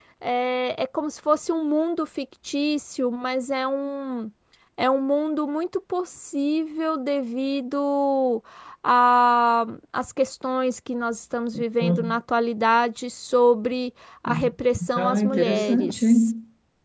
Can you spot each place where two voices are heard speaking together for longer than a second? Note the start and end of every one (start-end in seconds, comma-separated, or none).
15.0-16.3